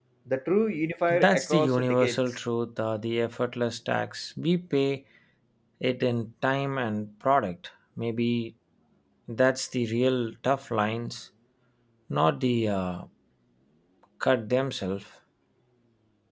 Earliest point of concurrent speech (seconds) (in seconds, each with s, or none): 1.1 s